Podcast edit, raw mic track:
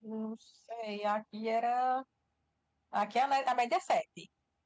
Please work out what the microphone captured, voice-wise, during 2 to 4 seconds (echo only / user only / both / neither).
user only